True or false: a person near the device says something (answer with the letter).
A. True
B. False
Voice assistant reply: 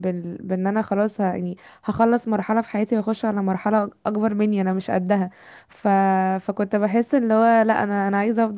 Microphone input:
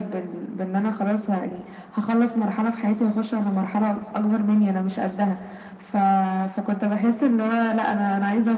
B